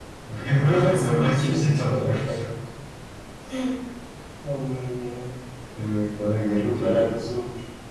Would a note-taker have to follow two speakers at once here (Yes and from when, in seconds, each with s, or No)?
Yes, from 0.6 s